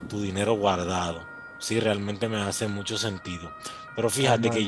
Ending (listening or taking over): taking over